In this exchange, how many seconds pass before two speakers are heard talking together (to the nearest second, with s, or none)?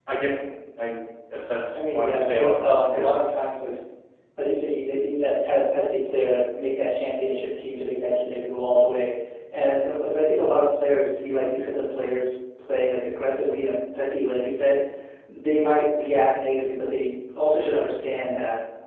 2 s